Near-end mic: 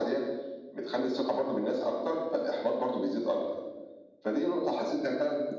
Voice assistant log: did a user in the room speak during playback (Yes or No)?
No